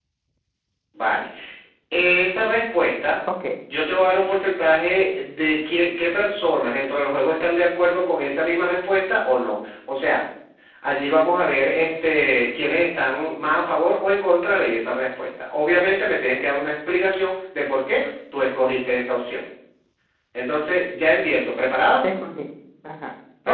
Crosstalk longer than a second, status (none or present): none